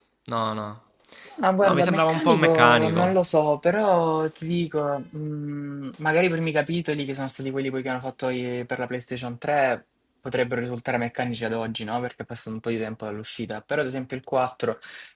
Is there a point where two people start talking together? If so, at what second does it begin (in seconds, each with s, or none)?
1.6 s